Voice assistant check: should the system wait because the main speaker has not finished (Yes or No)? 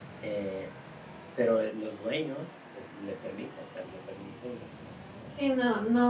No